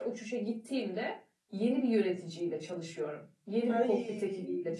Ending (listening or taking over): listening